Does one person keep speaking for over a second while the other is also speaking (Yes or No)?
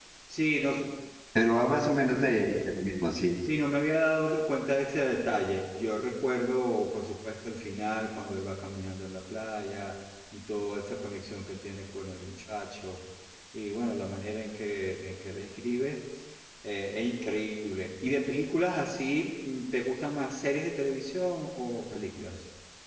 No